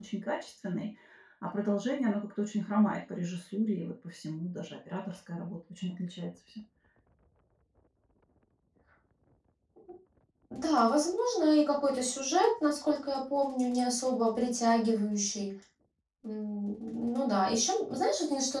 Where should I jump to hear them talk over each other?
none

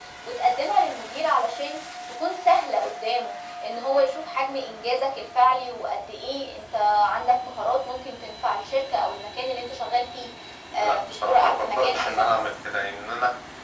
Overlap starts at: 10.8 s

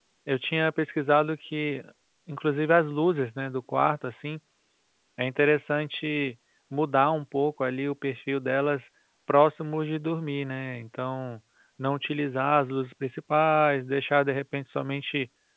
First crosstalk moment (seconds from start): none

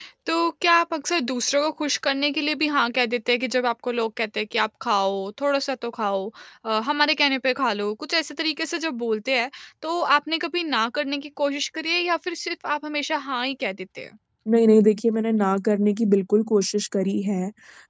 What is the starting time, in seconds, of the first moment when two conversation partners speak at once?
none

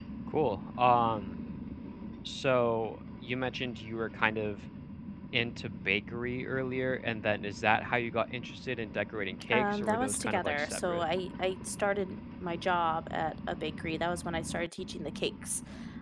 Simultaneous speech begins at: 9.5 s

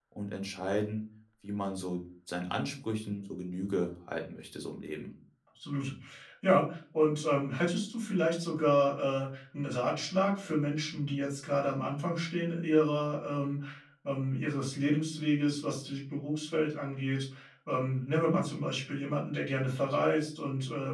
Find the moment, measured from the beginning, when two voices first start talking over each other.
none

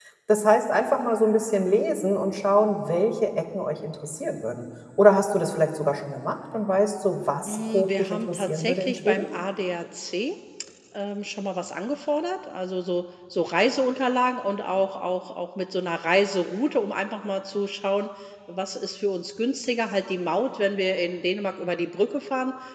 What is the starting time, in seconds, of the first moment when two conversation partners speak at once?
7.5 s

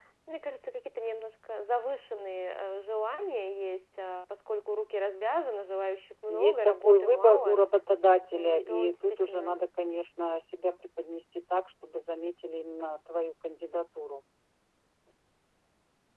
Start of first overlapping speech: 6.3 s

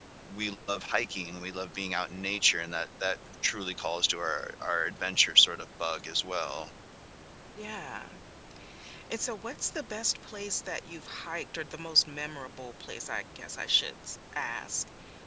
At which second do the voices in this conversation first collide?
none

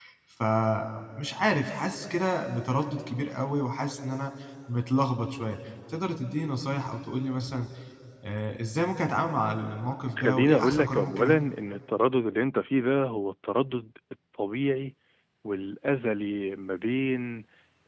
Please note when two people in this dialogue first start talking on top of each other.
10.2 s

